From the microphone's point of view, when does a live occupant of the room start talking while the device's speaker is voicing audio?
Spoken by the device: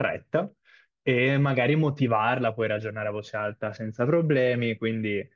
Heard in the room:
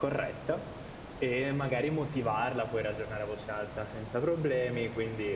none

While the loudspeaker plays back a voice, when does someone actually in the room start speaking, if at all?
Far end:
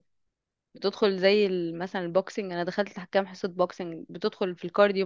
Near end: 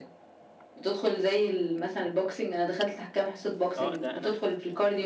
3.8 s

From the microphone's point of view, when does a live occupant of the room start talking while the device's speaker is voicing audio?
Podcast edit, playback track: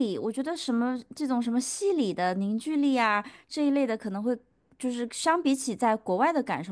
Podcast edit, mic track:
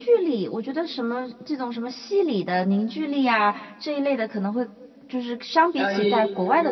5.7 s

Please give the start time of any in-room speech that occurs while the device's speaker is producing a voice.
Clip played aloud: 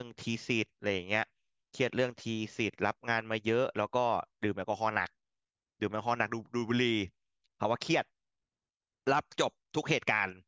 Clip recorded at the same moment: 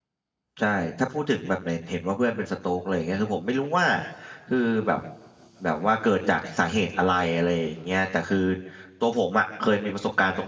0.6 s

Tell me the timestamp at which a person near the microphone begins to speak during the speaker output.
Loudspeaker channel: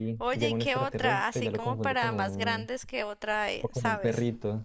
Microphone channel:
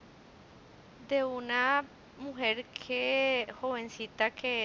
1.0 s

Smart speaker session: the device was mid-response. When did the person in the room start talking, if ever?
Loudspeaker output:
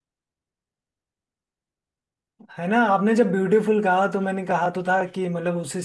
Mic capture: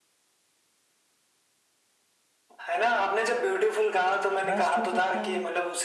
4.4 s

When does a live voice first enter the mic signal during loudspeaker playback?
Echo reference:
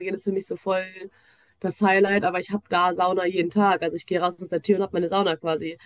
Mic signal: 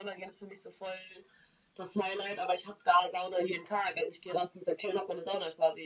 none

